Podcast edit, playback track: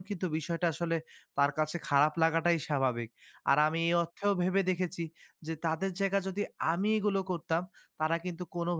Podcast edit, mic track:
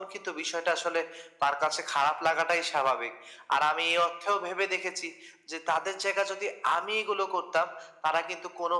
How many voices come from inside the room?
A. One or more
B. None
B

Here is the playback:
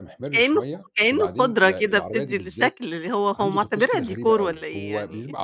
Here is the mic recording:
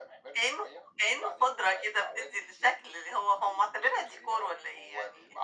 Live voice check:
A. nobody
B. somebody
A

